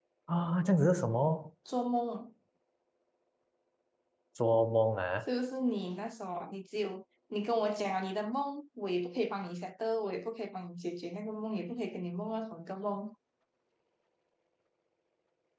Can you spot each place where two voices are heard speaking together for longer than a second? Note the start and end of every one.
none

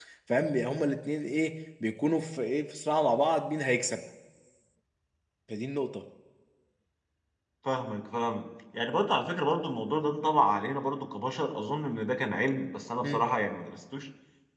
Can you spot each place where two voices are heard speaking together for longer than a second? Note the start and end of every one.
none

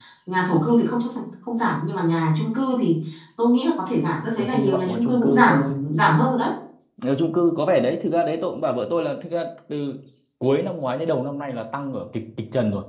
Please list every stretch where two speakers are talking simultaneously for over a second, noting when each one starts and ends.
4.4-5.8

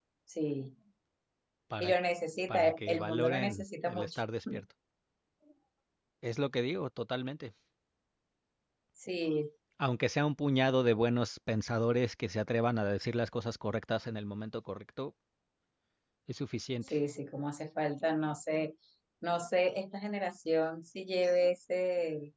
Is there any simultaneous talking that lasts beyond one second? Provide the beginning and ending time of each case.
2.5-4.2

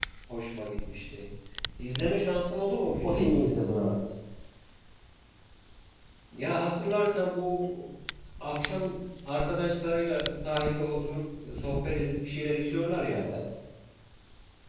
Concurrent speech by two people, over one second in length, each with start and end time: none

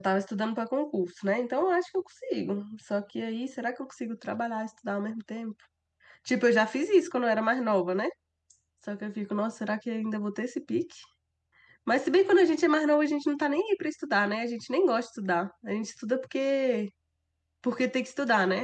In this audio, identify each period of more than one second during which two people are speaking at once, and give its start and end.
none

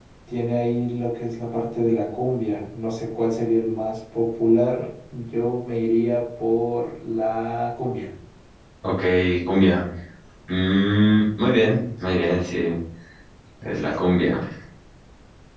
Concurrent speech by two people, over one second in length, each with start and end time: none

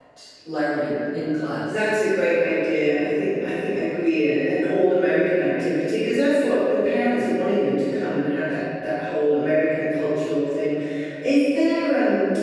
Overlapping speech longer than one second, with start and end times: none

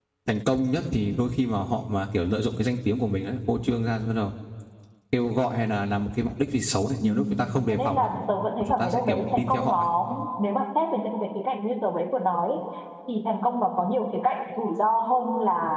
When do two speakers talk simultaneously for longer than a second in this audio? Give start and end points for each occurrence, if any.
8.6-9.9

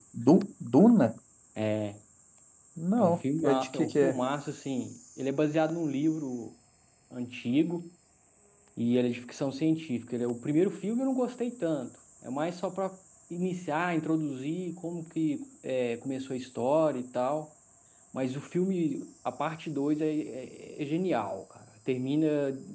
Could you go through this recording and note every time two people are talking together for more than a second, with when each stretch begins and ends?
3.0-4.2

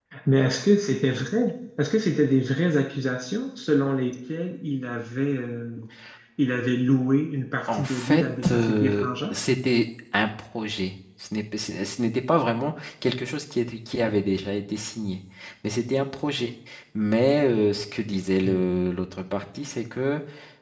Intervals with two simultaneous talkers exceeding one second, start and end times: 7.7-9.3

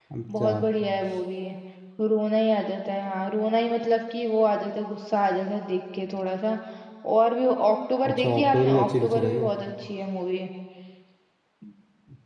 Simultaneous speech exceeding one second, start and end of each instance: 8.1-9.5

